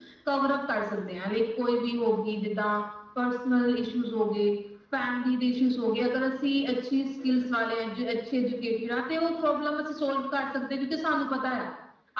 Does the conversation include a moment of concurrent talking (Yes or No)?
No